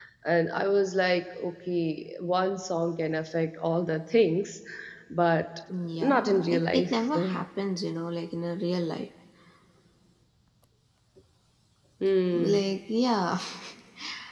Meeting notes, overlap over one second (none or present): present